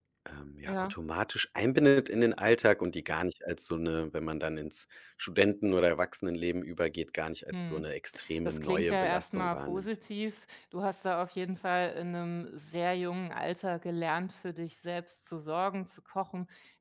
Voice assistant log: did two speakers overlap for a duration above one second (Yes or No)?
Yes